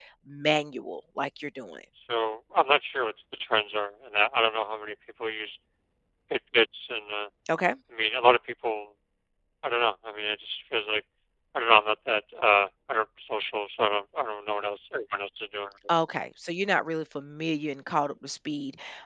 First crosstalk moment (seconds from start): none

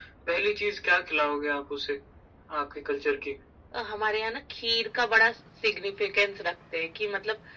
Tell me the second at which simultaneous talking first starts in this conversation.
none

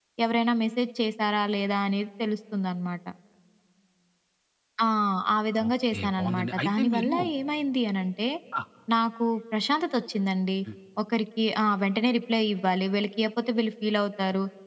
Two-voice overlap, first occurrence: 5.7 s

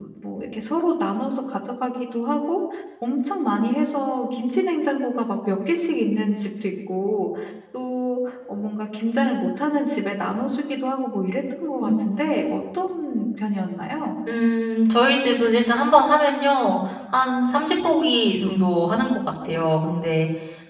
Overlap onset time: none

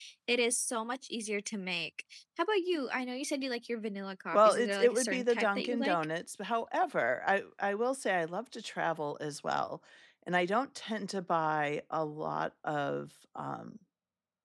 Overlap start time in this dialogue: 4.3 s

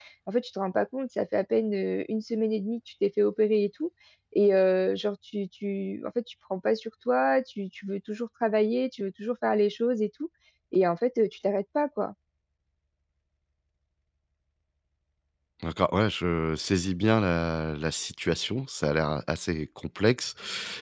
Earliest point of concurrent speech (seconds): none

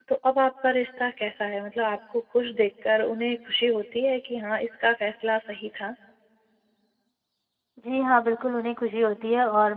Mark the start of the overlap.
none

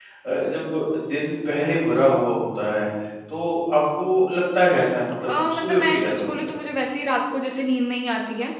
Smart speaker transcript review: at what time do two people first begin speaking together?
5.2 s

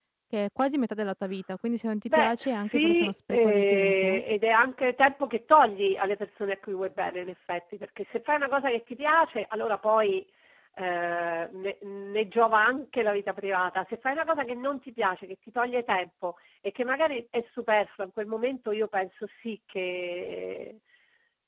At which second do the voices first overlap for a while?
2.1 s

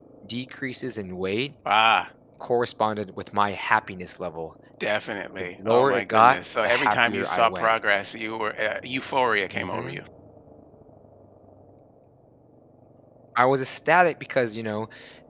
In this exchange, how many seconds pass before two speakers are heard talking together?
5.4 s

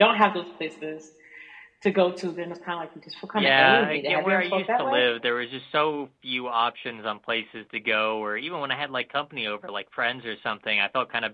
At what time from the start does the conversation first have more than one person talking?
3.4 s

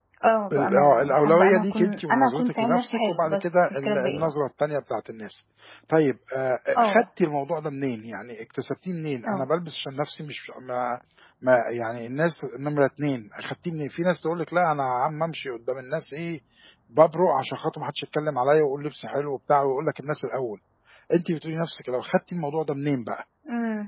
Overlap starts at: 0.5 s

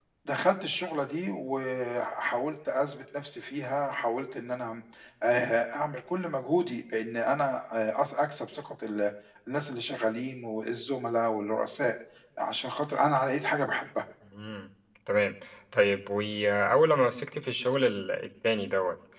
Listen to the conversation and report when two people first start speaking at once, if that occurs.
none

